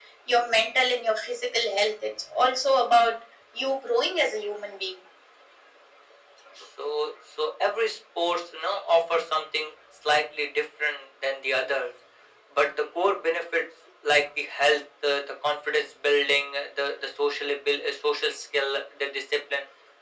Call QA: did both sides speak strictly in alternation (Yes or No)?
Yes